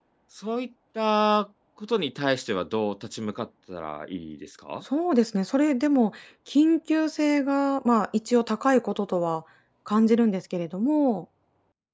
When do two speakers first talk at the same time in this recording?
none

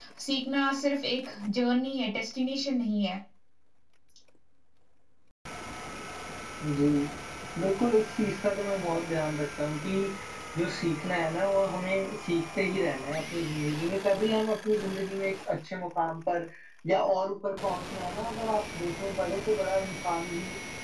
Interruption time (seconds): none

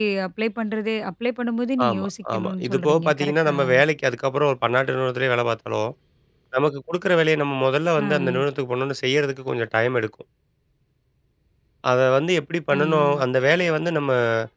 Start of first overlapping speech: 1.9 s

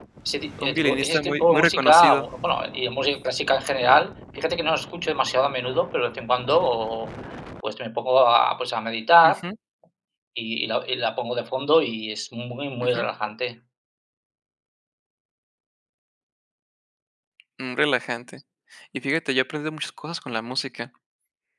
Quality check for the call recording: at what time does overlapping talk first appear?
0.6 s

